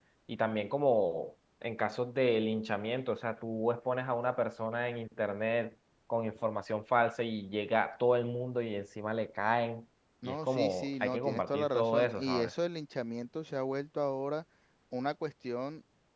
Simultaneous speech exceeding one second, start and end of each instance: 10.2-12.5

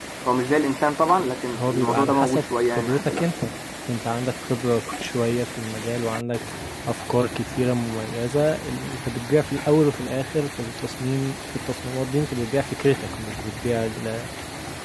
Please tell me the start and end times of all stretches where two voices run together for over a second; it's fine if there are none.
1.5-3.3

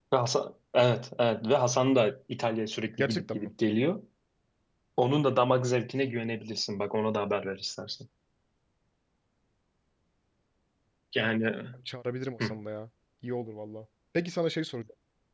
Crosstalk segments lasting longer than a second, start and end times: none

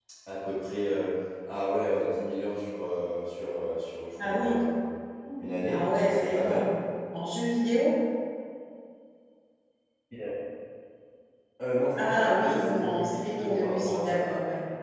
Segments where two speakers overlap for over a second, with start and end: 5.4-6.7, 12.0-14.2

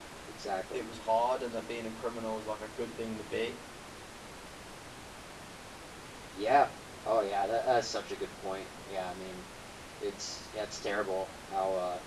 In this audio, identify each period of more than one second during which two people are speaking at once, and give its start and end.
none

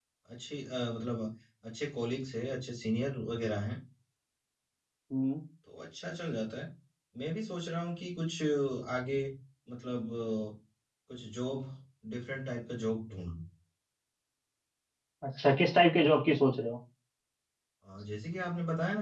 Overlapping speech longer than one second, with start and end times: none

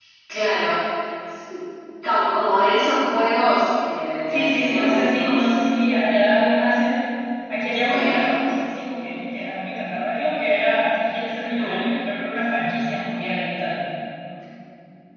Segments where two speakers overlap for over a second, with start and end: 4.3-5.5

